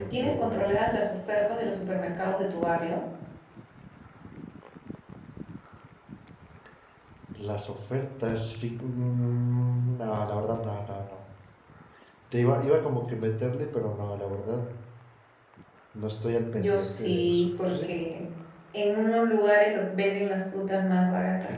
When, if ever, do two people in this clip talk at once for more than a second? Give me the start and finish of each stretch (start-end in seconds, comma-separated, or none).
16.6-17.9